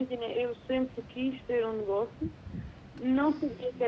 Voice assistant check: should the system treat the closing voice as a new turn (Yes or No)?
No